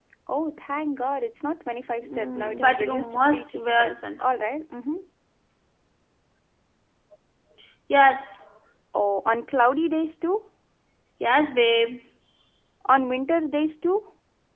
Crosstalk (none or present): present